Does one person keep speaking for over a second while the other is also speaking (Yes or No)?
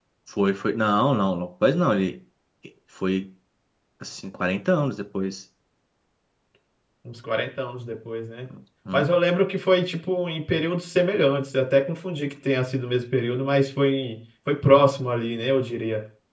No